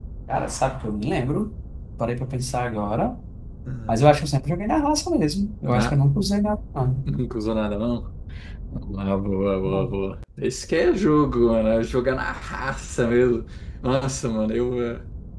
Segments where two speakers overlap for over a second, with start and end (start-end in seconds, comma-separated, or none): none